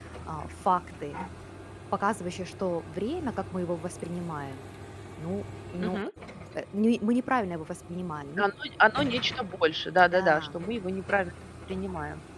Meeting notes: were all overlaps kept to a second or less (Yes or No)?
Yes